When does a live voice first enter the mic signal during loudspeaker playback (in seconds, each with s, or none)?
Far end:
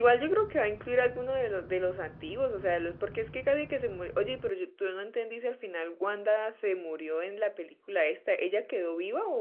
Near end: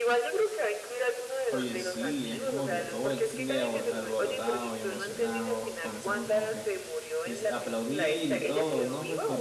1.5 s